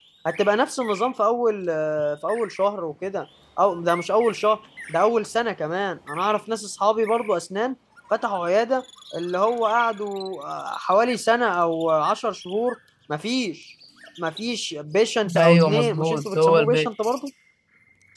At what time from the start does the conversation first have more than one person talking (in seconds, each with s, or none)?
15.2 s